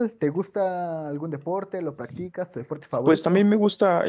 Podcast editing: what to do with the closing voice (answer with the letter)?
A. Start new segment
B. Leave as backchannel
A